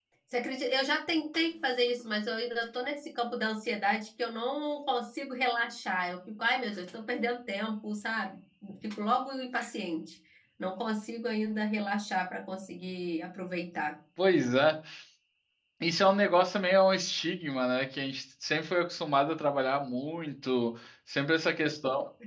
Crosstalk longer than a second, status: none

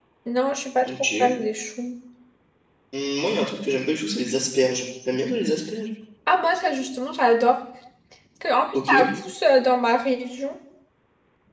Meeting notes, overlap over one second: none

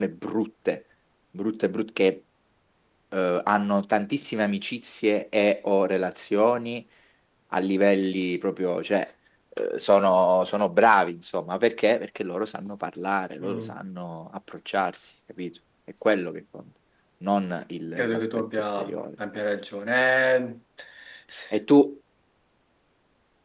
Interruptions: present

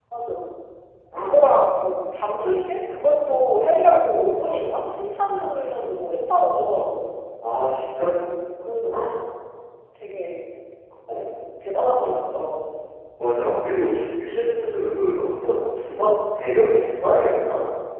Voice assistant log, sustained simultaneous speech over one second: none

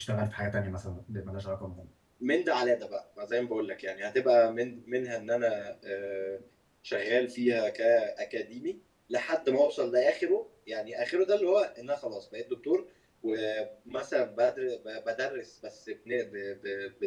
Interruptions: none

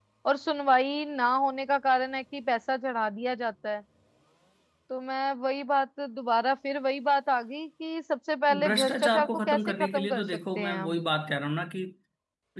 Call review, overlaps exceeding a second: present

